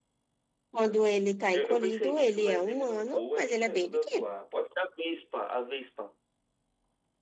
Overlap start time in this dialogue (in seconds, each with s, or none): 1.5 s